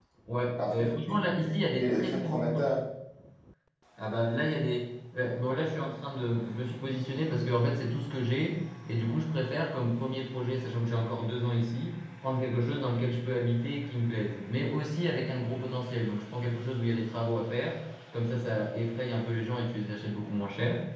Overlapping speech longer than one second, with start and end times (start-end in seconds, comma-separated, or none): 0.7-2.7